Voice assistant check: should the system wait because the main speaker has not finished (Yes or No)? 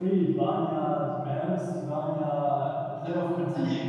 Yes